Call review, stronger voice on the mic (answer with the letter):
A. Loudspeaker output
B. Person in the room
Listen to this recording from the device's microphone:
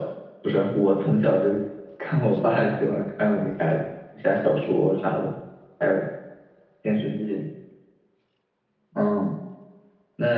A